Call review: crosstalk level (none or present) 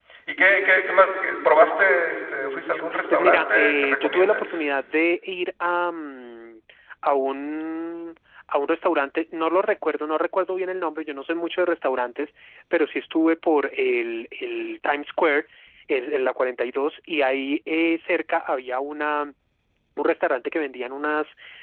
present